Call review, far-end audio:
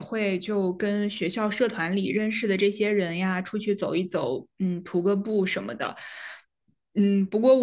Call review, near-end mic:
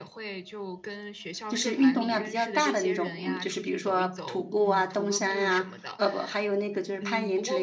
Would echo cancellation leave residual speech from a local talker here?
Yes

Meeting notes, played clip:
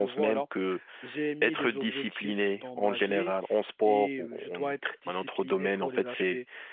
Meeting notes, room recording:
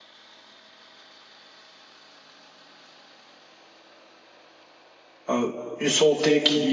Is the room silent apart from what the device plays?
No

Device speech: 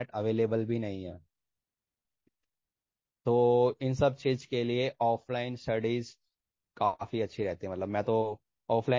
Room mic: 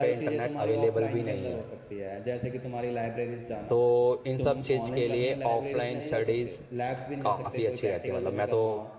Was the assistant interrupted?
Yes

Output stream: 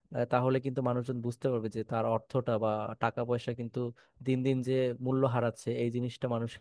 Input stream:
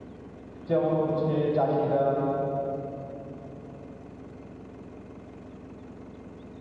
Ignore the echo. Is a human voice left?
Yes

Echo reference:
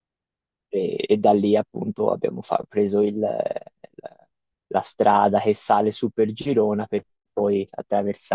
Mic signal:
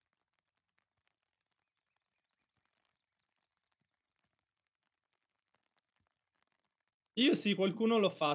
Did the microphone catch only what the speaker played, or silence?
No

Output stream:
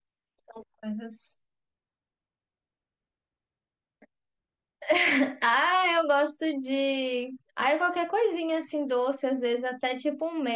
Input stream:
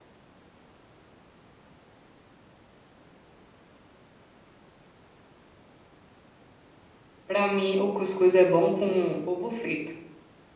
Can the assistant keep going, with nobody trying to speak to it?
No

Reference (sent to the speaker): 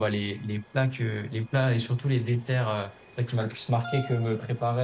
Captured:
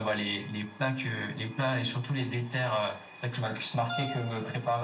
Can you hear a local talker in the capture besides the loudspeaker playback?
No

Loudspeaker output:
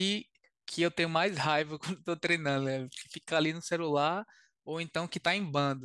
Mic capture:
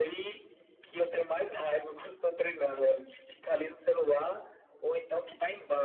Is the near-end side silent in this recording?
Yes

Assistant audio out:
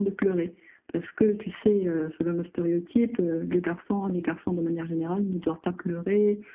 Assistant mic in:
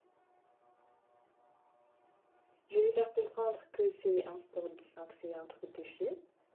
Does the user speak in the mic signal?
Yes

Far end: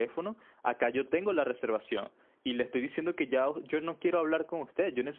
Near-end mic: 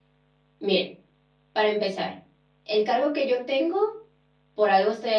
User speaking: Yes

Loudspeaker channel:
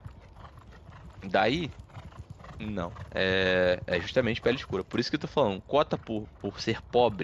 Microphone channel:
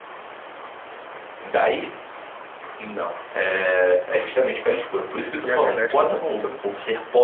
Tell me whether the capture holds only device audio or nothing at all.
No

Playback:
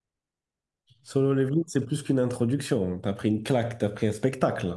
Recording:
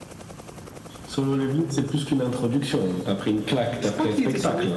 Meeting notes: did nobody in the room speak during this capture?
No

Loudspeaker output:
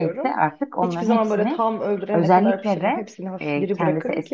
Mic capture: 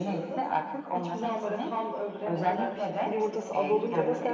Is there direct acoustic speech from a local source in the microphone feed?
Yes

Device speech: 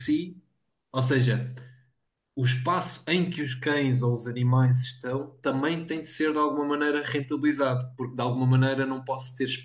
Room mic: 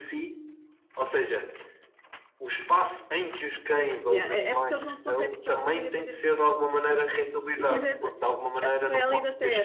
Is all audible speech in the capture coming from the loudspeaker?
No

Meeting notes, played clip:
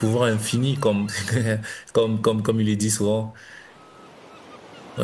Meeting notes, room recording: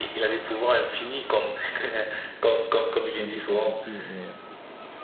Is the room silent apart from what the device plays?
No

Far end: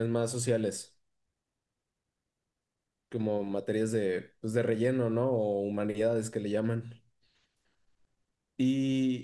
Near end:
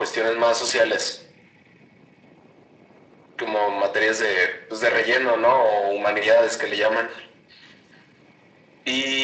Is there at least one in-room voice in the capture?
No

